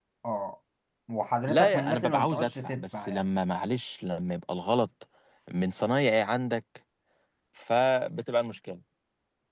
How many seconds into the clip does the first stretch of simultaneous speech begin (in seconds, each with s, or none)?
1.5 s